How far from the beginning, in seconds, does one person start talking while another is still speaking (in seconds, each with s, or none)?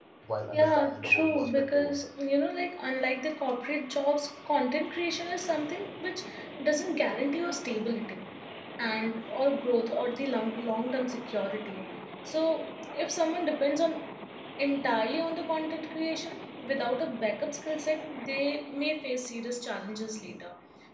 0.5 s